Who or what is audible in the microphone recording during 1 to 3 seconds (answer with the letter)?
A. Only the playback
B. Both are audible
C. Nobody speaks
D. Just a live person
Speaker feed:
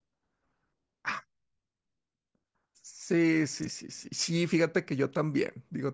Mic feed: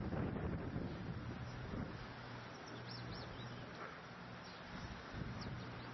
C